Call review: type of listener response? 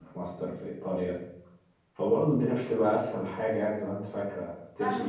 taking over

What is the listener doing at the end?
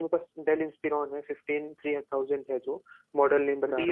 taking over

